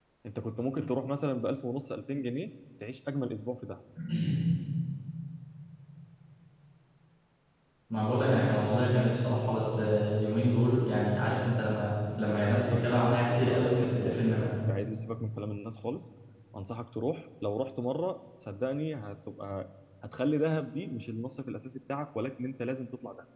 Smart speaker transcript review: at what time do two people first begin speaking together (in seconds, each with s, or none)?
12.5 s